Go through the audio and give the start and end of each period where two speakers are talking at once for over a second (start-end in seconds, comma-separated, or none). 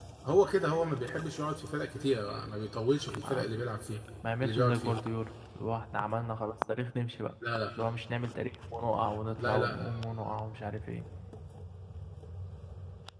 none